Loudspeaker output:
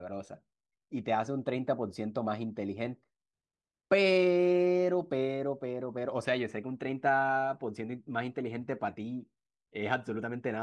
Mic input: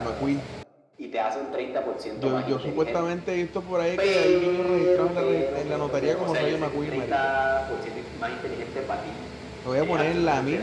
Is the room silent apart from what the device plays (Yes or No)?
No